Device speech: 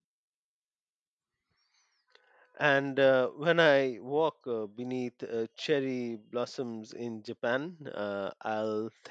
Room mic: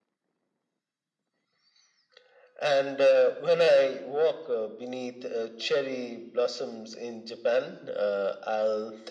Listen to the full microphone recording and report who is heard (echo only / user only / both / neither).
echo only